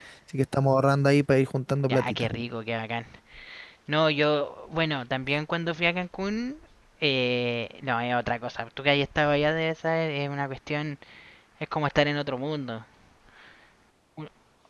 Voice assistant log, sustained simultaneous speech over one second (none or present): none